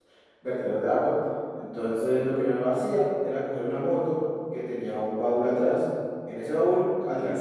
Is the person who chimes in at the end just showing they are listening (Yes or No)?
Yes